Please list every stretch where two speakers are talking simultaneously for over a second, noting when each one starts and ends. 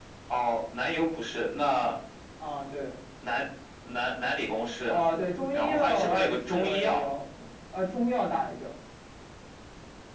5.5-7.1

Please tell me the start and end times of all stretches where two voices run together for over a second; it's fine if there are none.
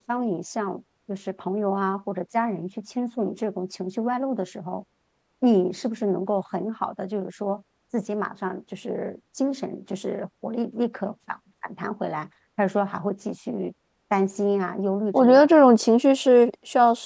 none

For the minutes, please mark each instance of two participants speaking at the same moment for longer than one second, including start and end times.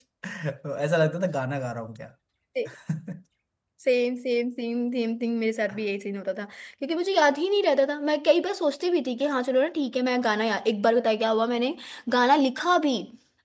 none

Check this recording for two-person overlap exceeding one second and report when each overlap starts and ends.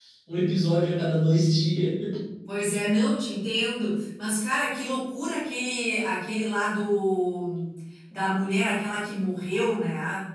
none

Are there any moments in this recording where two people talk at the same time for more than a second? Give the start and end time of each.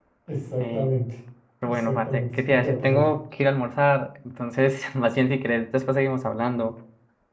1.6-3.0

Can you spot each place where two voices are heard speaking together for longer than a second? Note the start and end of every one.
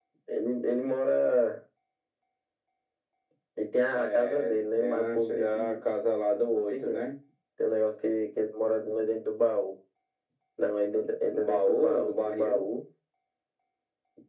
3.9-5.8, 11.3-12.7

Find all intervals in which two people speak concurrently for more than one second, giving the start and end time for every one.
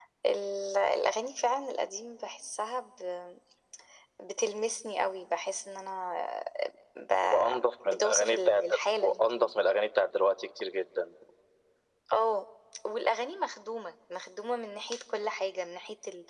7.8-9.5

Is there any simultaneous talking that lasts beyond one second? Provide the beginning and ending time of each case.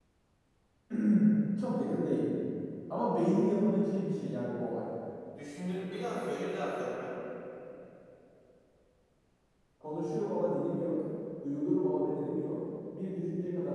none

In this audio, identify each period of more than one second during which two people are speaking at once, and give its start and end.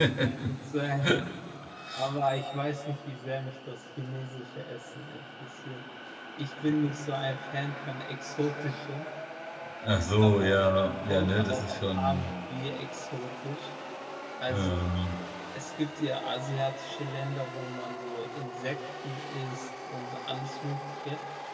11.1-12.3

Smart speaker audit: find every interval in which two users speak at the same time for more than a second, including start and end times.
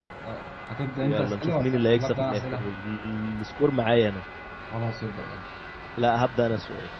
1.0-2.7

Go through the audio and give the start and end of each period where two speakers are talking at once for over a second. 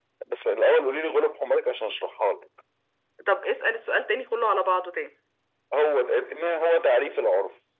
none

